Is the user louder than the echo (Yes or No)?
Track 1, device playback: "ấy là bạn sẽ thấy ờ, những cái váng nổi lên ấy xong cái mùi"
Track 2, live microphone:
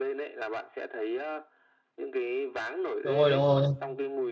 Yes